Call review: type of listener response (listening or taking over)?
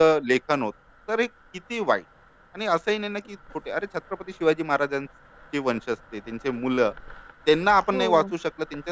listening